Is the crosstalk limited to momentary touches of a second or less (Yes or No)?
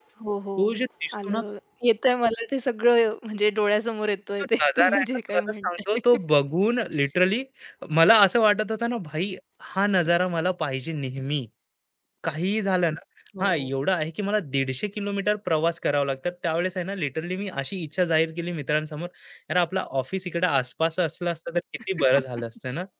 No